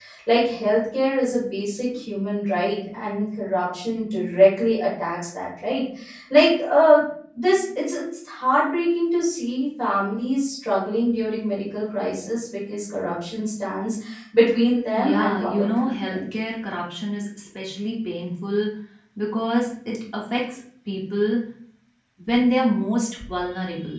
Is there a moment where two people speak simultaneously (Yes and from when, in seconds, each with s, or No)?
Yes, from 15.0 s